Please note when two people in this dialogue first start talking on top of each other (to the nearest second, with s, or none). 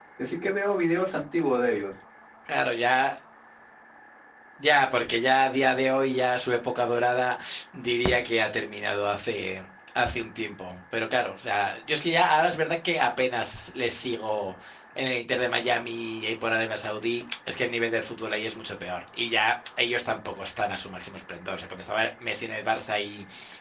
none